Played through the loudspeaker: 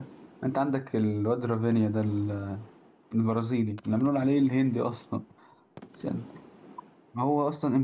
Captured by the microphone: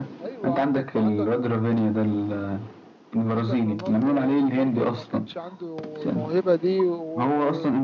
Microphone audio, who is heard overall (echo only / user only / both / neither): both